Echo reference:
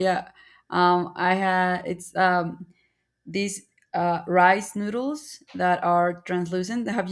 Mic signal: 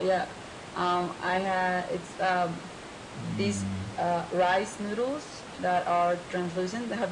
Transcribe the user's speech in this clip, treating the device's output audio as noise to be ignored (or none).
Mm,